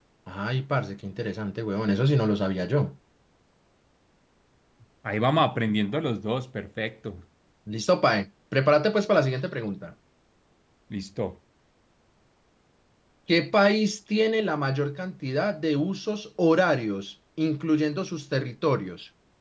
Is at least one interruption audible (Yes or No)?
No